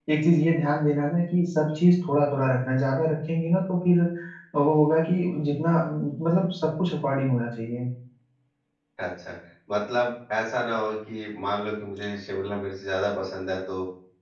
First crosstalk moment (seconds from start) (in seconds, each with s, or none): none